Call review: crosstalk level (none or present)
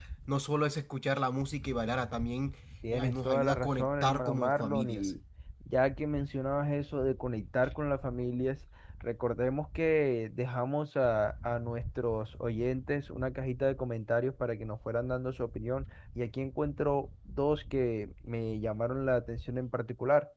present